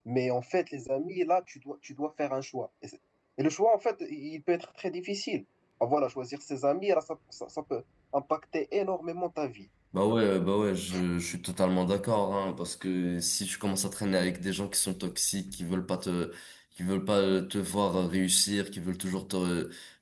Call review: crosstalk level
none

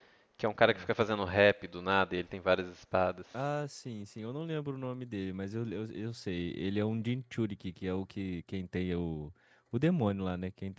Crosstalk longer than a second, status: none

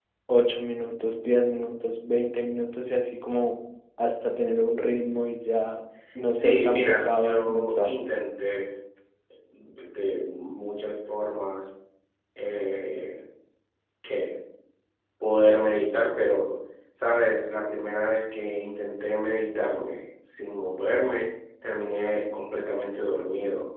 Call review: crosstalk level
present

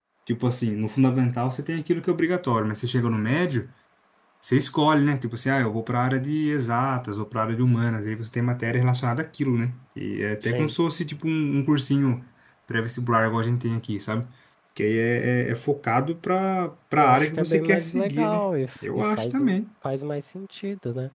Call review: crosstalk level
present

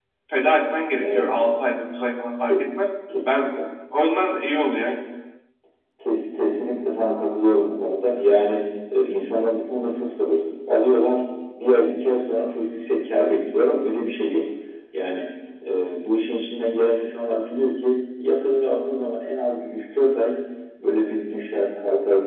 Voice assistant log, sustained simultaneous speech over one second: none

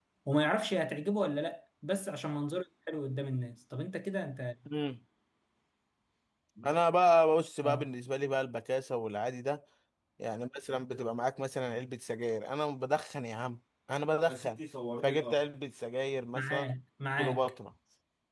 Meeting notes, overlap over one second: none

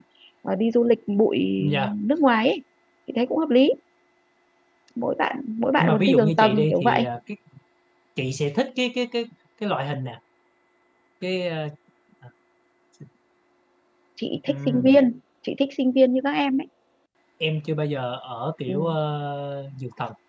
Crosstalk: present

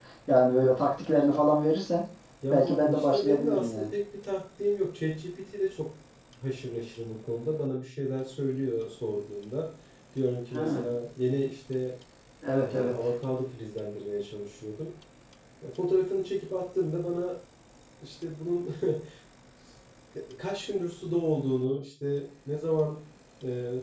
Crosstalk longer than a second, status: present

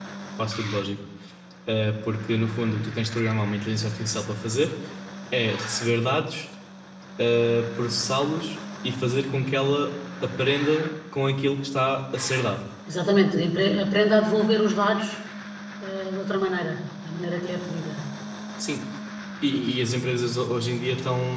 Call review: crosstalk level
none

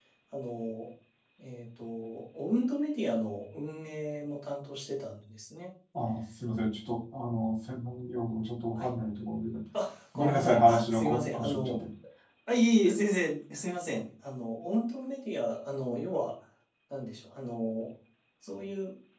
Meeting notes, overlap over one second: present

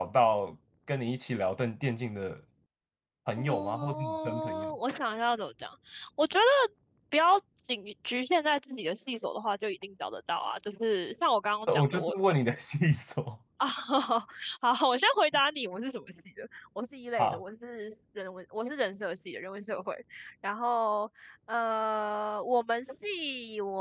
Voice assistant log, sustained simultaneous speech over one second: present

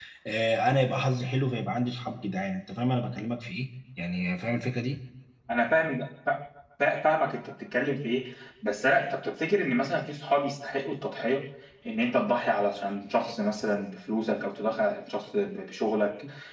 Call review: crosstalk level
none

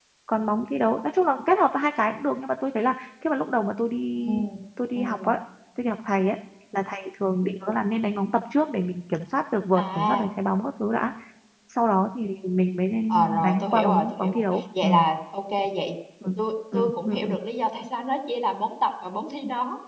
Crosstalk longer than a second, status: present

